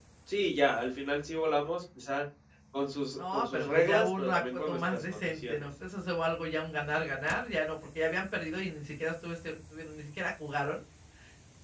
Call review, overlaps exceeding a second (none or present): present